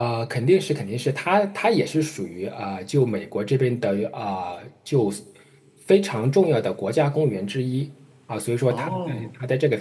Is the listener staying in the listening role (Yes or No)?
Yes